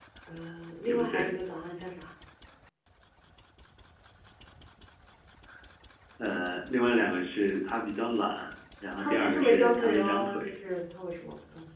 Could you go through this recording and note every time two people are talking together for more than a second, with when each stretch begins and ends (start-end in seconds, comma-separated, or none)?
9.0-10.4